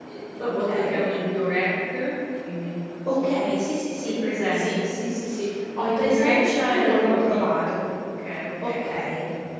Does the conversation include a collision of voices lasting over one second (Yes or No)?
Yes